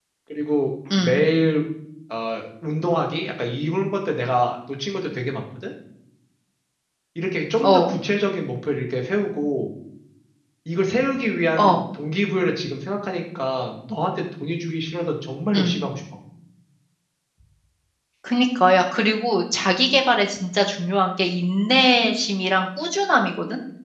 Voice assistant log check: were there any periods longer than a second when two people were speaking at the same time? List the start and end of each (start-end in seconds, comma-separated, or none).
none